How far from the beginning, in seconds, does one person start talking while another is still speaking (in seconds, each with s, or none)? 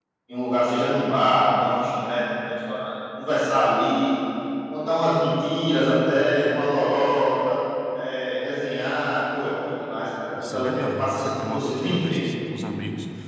10.3 s